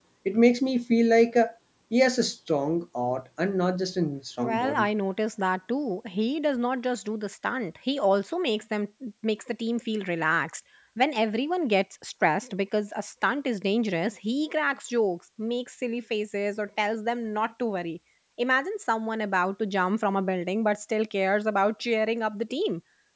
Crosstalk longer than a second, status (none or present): none